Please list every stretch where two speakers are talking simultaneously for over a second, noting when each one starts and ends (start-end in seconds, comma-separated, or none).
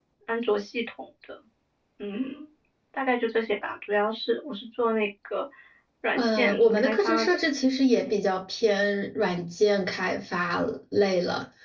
6.2-7.4